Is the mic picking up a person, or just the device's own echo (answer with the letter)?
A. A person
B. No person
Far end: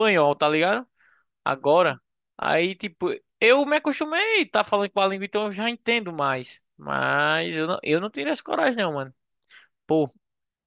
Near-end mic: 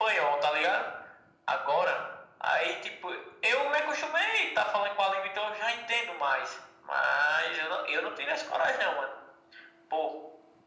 B